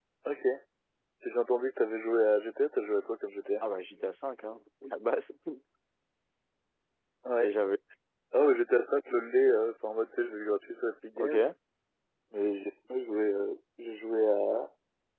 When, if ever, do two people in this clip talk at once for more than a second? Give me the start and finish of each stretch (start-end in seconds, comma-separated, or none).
none